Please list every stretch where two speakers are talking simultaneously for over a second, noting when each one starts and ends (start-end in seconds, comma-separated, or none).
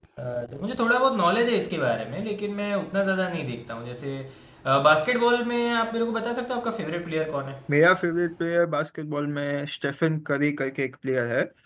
none